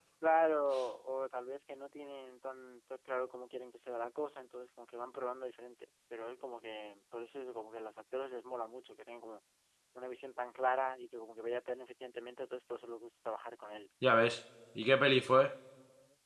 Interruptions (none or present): none